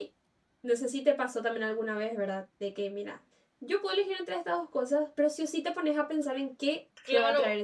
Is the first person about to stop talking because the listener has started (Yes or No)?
Yes